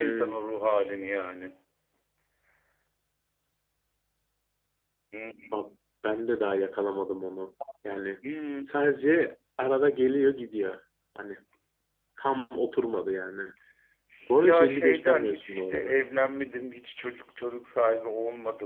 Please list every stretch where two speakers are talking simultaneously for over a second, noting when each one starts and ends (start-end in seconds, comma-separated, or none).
14.4-15.9